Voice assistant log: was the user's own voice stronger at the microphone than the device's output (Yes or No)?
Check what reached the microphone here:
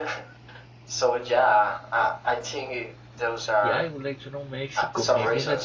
No